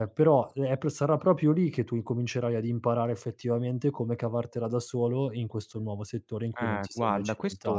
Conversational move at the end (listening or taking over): taking over